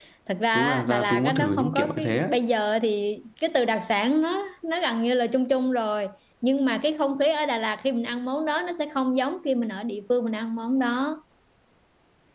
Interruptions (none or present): present